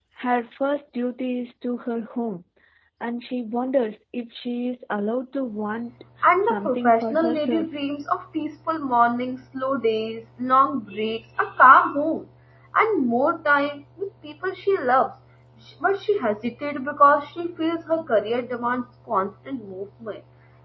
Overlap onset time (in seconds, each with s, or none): 6.5 s